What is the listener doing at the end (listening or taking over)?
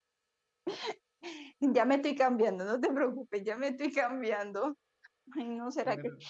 listening